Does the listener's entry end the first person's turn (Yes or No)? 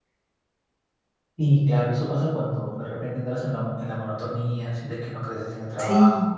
Yes